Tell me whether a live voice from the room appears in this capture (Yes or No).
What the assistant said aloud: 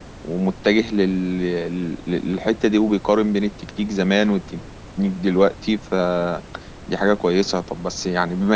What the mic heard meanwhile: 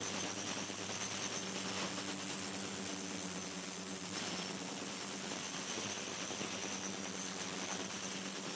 No